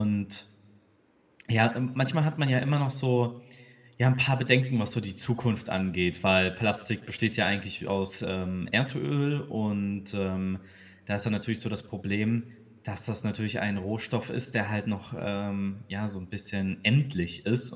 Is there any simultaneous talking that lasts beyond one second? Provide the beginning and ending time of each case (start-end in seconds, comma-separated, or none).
none